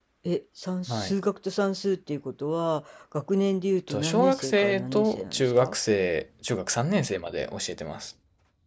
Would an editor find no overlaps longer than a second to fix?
No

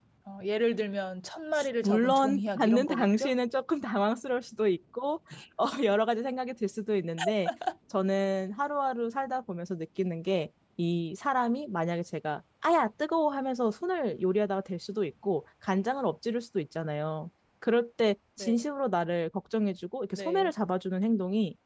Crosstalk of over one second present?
Yes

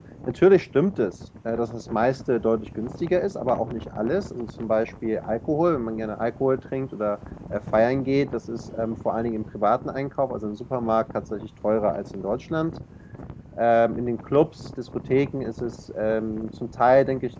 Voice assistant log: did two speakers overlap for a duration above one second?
No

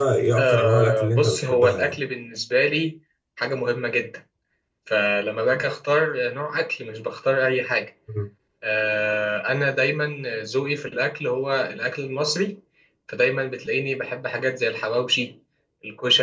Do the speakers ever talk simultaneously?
Yes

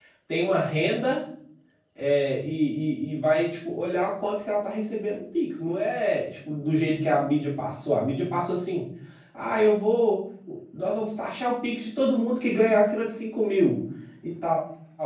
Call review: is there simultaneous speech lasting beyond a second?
No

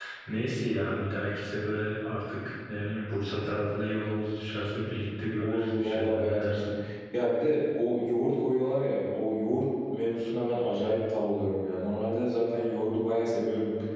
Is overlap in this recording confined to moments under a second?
No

